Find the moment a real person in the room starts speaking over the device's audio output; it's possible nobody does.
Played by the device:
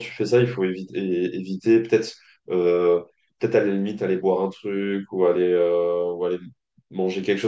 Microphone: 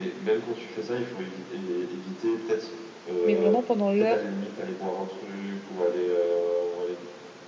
3 s

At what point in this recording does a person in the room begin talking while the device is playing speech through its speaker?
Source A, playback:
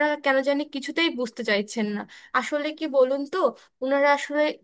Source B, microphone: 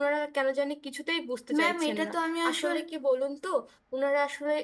2 s

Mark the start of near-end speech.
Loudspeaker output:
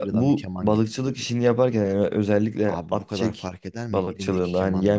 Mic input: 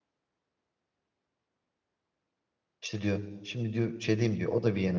3 s

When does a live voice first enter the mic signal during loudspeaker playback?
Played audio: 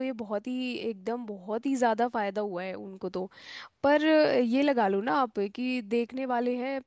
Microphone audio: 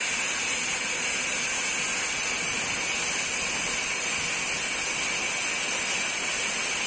none

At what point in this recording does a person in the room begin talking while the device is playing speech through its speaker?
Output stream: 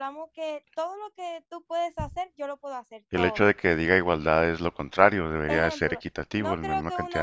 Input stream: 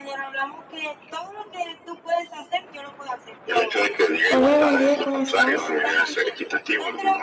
4 s

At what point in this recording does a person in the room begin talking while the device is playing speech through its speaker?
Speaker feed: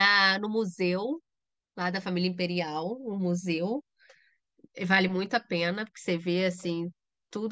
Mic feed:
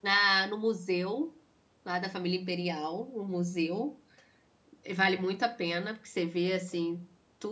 none

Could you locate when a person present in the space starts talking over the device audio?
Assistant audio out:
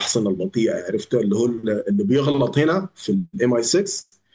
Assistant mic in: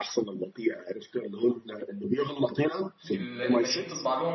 3 s

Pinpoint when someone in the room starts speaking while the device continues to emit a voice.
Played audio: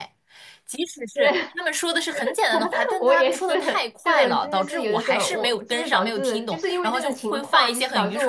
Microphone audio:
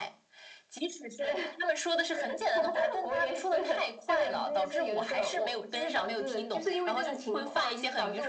none

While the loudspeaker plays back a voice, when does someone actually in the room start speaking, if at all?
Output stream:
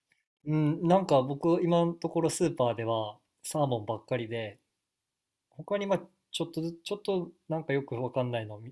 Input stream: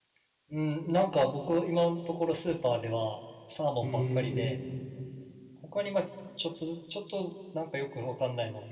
4 s

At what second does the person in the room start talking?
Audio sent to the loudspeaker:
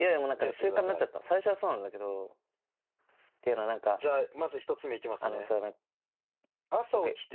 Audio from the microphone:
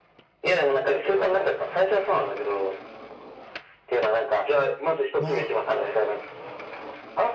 5 s

